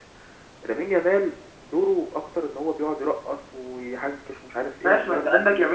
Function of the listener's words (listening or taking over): taking over